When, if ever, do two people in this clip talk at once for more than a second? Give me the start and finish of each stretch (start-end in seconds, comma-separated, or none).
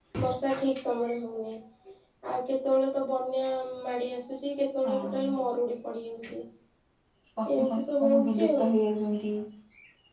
7.5-8.8